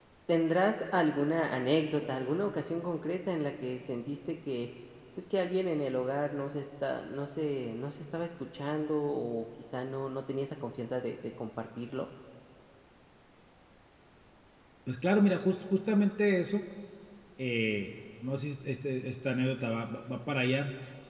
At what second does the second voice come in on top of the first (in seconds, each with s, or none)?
none